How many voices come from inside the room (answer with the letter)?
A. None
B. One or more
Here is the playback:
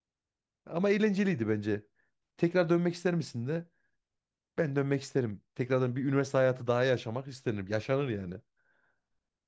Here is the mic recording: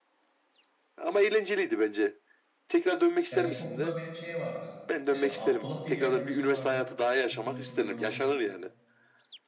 B